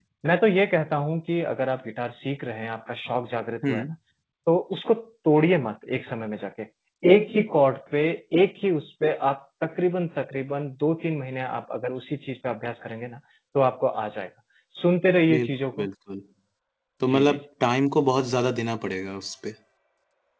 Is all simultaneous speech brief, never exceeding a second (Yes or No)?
Yes